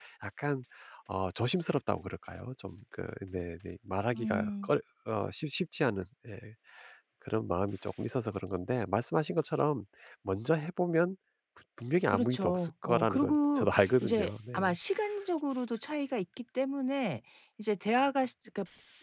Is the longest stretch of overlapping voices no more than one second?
No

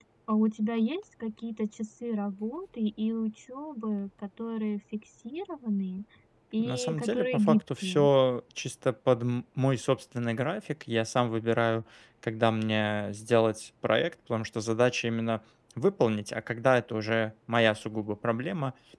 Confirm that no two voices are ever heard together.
No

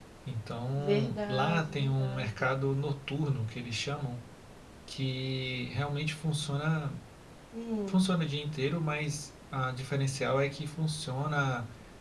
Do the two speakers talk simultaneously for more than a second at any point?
Yes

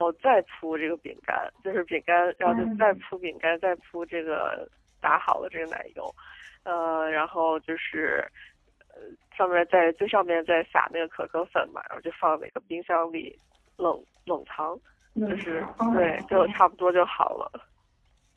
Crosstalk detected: Yes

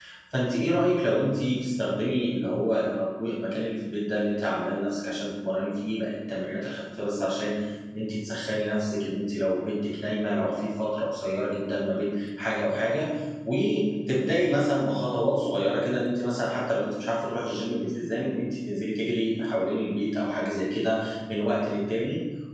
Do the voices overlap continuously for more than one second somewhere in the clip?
No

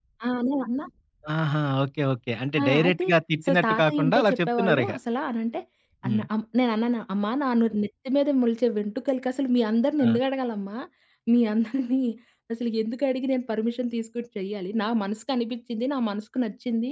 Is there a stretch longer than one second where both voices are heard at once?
Yes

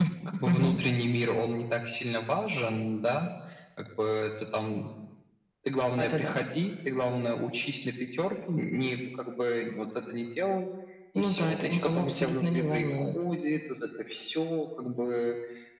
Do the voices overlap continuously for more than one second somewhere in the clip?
Yes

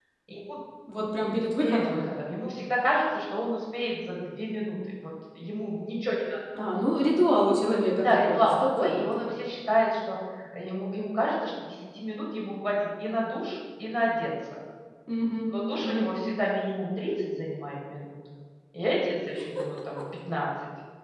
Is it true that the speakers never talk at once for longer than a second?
No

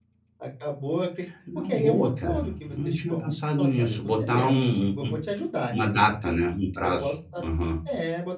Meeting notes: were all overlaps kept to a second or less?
No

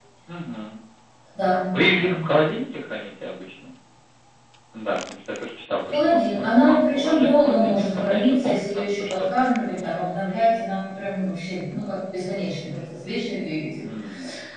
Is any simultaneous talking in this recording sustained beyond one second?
Yes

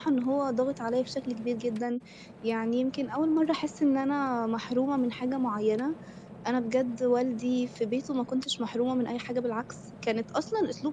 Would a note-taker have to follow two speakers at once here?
No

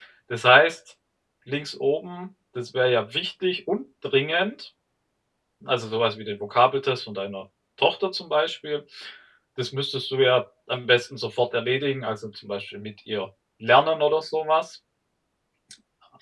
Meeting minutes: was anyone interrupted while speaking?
No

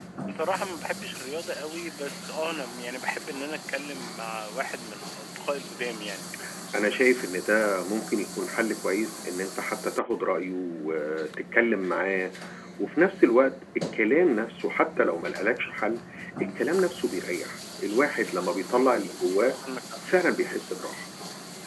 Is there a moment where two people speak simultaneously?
No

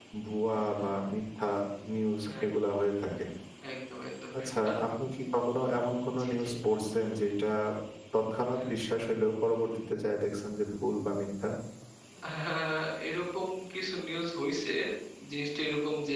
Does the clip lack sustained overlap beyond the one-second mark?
Yes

